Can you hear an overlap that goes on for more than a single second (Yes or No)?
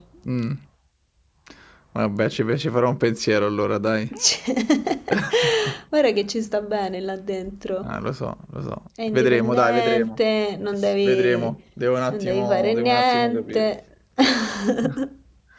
Yes